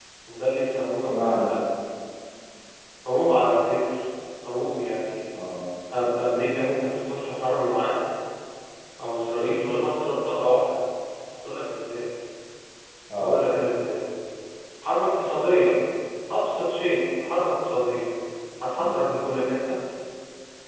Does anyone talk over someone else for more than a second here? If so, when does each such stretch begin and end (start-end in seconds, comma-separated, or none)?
none